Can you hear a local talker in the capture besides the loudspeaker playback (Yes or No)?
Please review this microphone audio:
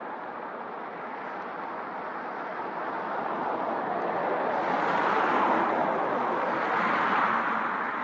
No